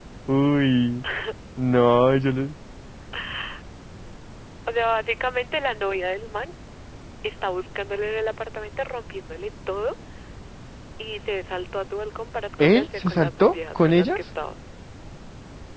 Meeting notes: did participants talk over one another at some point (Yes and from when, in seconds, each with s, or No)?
Yes, from 12.6 s